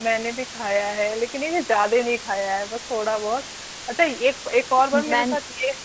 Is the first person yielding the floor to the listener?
No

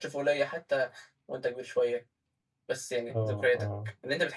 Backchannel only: Yes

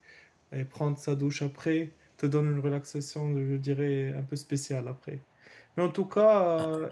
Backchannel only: Yes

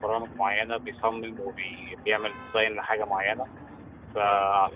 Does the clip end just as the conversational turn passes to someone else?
No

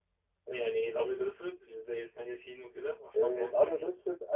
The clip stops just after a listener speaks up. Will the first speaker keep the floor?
No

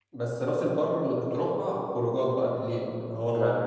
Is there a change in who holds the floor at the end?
Yes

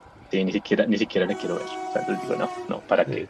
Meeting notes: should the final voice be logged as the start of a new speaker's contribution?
Yes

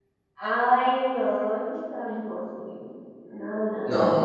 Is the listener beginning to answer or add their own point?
Yes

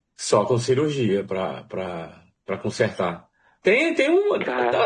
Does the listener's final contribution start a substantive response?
No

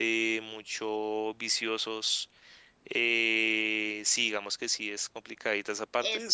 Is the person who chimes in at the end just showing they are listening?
No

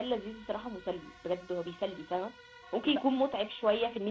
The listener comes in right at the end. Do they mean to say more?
No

